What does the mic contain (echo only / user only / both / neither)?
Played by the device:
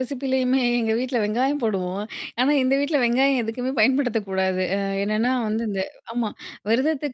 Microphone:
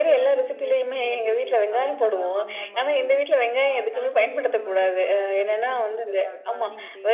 both